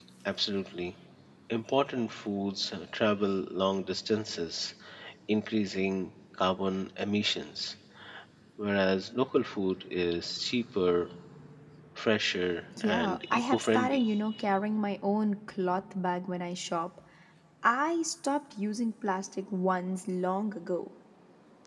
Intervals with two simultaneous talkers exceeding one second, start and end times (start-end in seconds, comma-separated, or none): 12.8-14.1